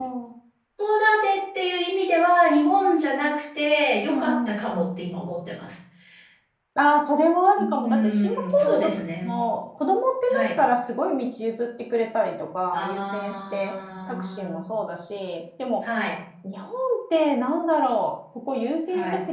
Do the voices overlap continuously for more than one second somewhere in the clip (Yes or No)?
Yes